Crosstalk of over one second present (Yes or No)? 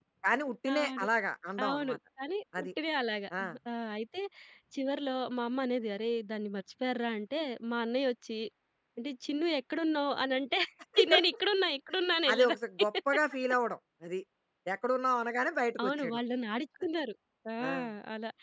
No